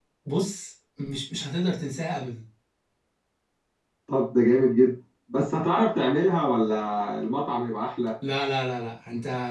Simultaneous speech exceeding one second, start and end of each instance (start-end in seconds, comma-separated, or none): none